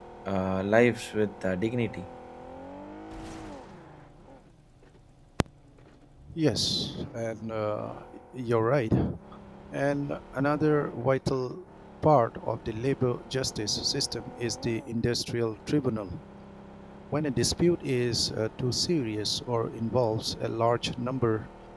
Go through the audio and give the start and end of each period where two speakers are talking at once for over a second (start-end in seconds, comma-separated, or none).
none